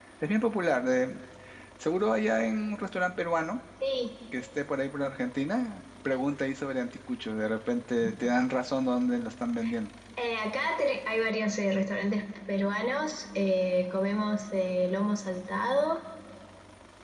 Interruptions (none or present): none